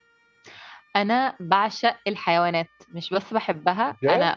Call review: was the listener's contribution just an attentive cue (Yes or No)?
Yes